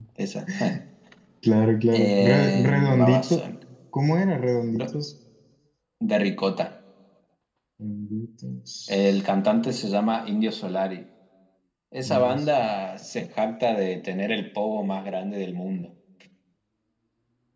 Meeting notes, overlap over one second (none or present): present